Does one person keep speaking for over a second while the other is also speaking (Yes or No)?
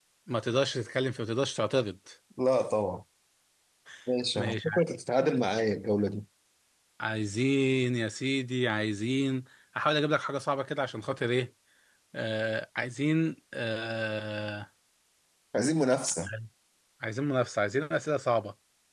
No